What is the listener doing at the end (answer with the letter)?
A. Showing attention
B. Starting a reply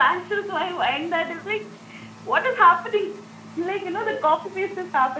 A